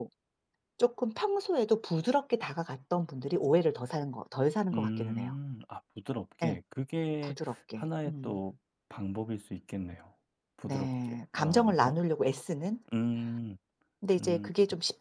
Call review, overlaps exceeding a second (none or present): present